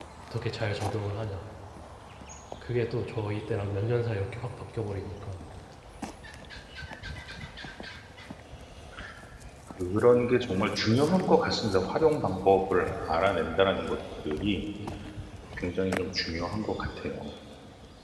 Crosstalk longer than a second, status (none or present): none